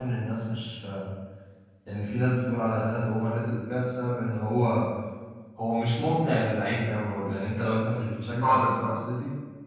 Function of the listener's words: listening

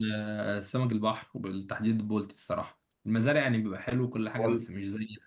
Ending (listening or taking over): listening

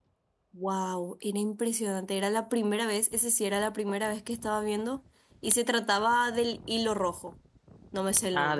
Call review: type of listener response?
taking over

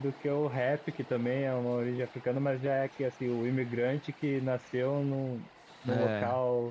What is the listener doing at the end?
listening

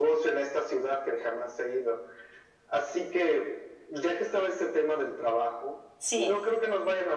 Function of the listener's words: listening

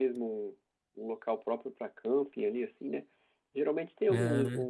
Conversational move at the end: listening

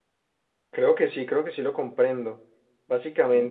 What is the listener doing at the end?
listening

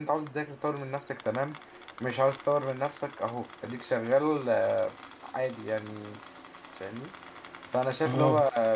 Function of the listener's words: listening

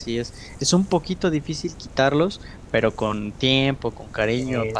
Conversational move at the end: listening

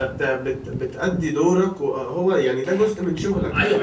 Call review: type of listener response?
taking over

